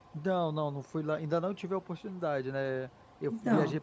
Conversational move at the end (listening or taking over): listening